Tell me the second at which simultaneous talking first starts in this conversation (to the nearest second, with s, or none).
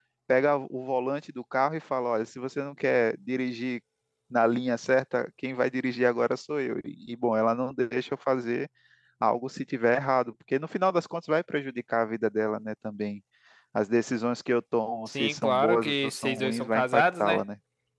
15 s